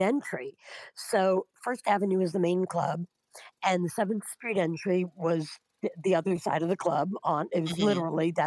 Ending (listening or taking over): listening